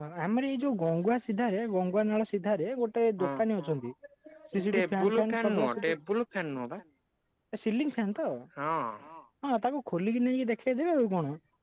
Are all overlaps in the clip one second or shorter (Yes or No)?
No